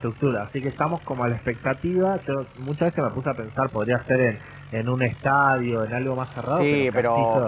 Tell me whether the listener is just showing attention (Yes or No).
No